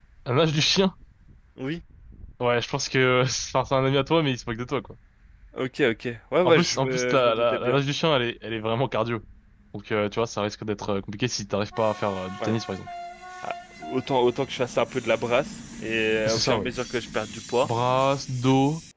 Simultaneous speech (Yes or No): Yes